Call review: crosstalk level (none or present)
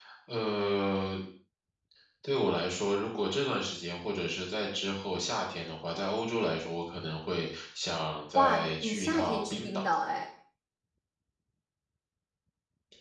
present